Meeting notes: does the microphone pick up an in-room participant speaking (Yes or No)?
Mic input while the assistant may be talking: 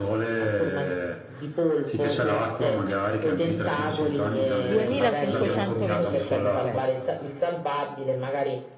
Yes